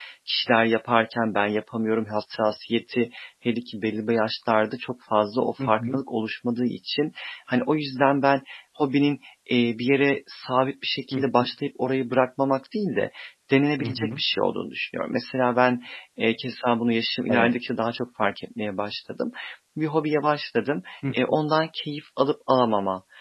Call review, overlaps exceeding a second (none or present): none